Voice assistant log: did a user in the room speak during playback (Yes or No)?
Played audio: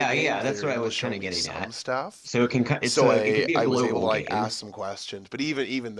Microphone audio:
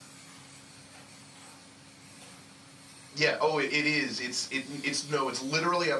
Yes